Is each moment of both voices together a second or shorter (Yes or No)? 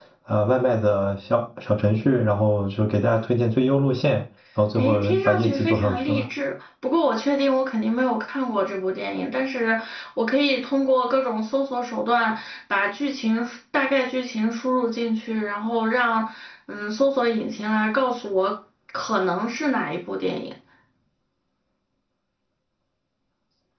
No